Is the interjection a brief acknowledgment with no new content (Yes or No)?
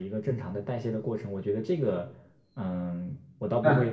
No